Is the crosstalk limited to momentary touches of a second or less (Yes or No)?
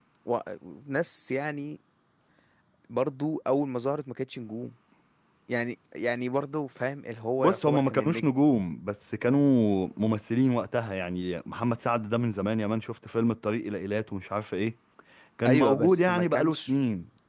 No